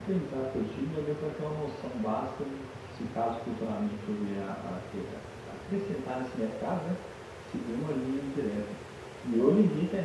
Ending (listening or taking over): listening